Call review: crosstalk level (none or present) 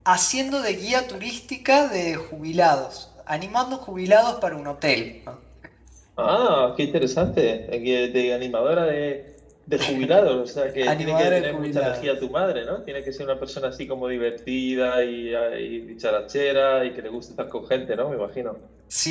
present